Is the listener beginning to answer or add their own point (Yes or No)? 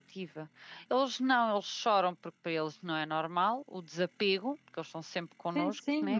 Yes